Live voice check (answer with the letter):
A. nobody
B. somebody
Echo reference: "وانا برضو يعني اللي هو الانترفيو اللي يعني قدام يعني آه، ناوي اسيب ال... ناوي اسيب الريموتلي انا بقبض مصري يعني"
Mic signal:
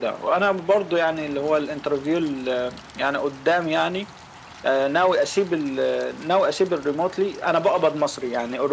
A